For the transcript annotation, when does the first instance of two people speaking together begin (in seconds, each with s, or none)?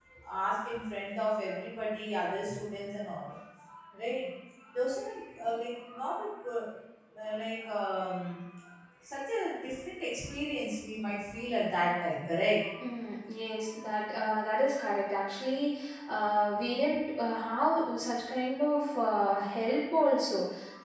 none